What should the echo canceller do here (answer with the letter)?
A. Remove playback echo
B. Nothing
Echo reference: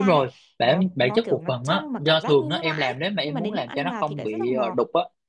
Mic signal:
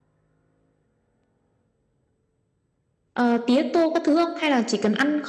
B